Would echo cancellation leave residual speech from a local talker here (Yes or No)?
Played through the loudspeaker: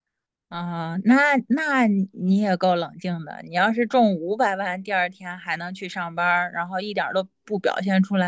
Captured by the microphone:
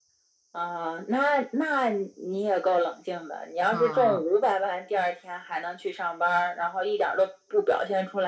Yes